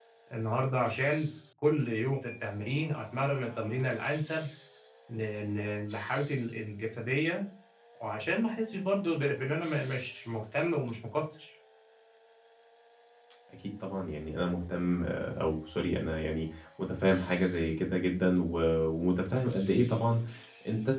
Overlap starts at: none

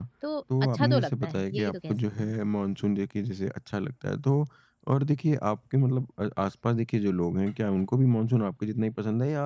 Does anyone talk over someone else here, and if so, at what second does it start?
0.6 s

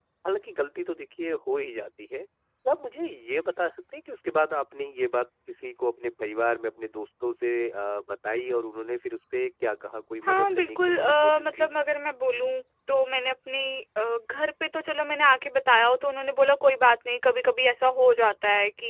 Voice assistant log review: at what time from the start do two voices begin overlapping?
10.2 s

